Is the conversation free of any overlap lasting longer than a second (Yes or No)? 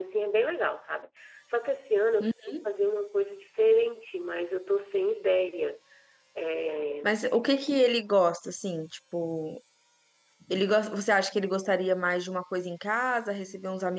Yes